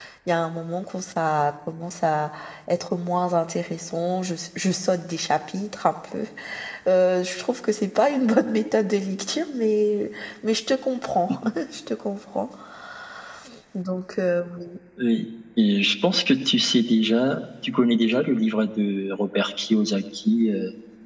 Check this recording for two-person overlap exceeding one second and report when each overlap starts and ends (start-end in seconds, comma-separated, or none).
none